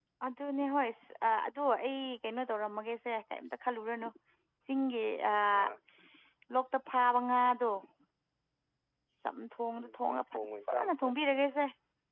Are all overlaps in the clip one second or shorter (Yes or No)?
No